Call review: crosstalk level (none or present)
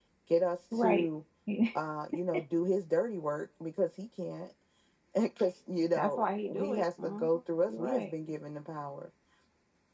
present